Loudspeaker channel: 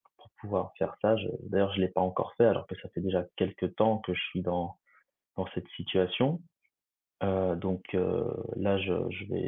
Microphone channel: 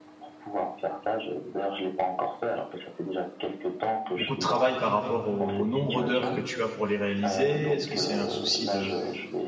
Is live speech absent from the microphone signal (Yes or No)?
No